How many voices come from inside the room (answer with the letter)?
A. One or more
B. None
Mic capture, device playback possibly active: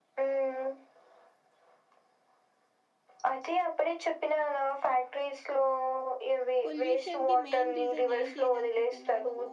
A